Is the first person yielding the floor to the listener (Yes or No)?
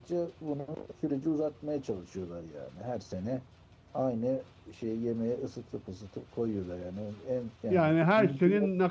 Yes